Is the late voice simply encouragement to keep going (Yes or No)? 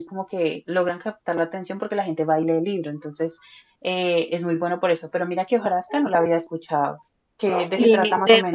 No